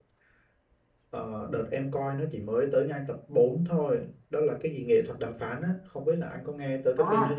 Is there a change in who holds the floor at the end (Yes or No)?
Yes